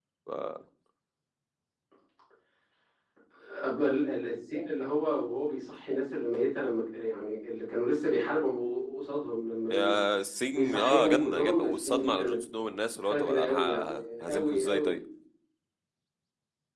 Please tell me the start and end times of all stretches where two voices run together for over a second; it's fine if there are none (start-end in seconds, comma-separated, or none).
10.5-12.4, 13.1-15.0